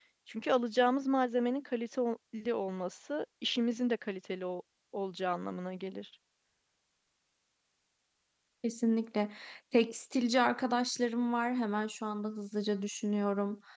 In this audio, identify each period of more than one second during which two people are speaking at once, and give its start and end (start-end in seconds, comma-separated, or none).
none